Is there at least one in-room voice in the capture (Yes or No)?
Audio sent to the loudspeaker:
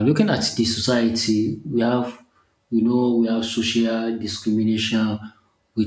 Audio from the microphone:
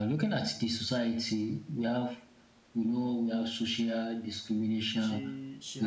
Yes